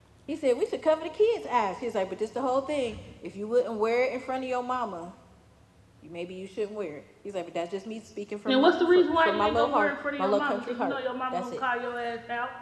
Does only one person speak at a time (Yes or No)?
No